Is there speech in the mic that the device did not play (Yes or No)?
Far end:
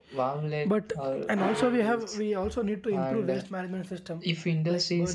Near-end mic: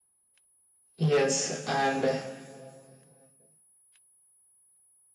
Yes